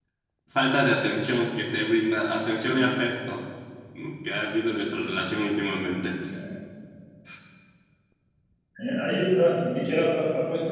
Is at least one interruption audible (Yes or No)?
No